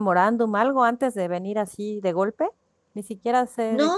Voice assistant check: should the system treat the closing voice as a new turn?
Yes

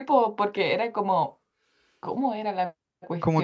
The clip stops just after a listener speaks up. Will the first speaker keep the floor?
No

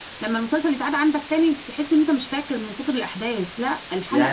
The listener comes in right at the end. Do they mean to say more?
Yes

